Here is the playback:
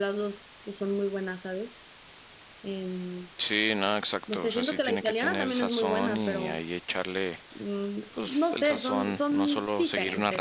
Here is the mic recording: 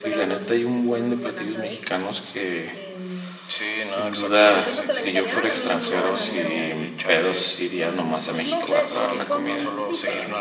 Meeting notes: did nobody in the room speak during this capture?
No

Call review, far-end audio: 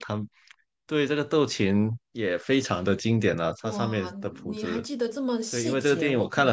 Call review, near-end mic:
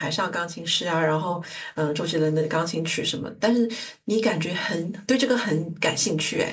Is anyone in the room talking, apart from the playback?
Yes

